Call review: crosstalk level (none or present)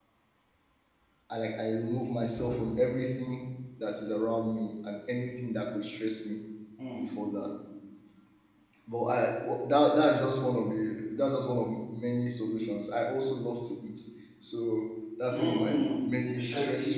present